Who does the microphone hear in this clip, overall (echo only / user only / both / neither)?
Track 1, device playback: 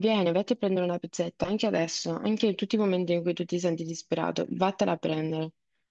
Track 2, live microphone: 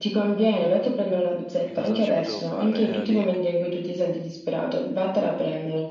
both